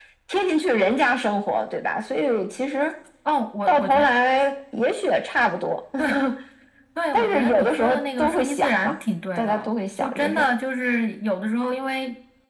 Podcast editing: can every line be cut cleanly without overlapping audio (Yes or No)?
No